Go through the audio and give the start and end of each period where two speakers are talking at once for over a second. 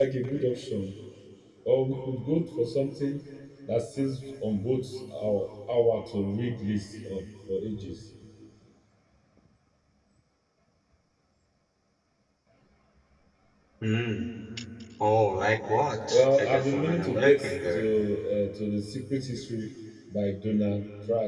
16.1-17.8

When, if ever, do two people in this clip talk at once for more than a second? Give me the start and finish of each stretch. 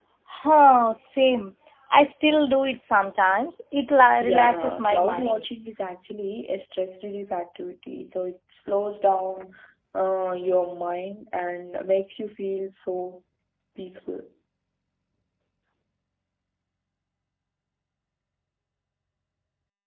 4.2-5.4

